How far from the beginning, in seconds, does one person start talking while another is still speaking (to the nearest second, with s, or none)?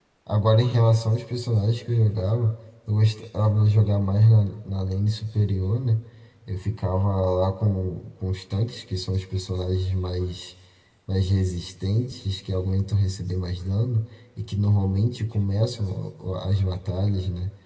none